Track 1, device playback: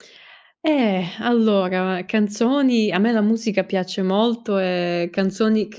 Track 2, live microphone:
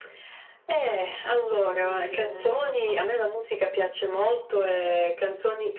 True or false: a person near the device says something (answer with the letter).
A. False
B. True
B